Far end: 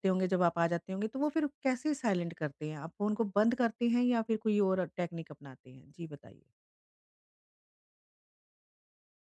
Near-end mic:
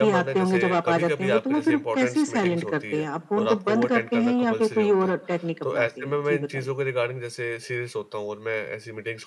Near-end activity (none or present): present